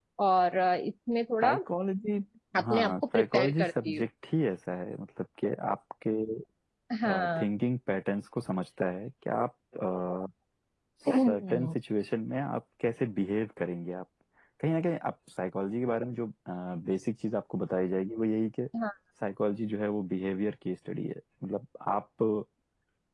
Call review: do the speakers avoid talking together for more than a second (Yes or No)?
No